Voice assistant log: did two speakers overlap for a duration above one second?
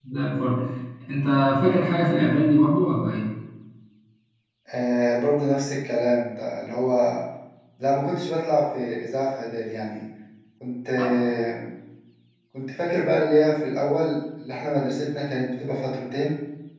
No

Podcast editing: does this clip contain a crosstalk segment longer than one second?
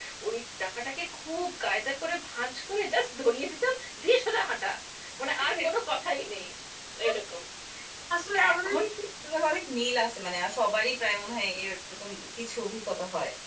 No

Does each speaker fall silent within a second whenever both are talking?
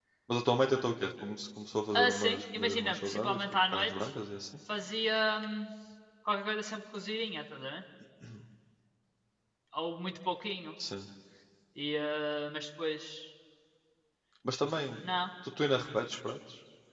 No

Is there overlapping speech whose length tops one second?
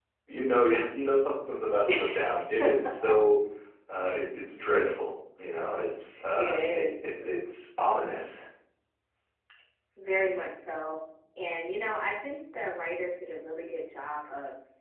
No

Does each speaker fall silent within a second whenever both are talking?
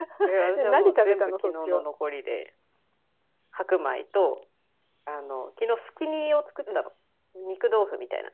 No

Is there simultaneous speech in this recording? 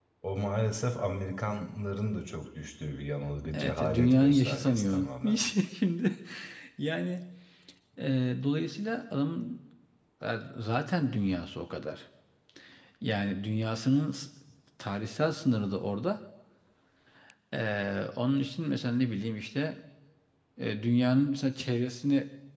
Yes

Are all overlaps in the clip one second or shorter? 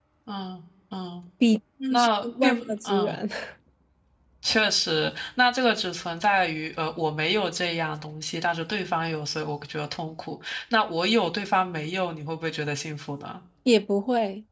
No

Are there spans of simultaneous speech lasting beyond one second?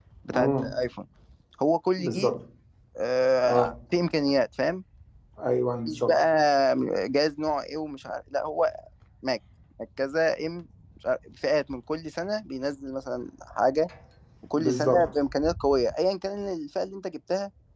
No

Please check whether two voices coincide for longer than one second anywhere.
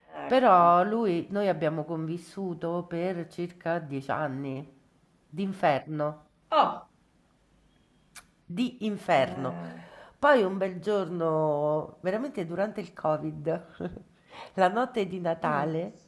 No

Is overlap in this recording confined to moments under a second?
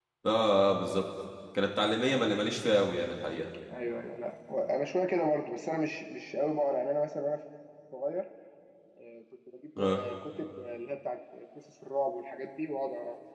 Yes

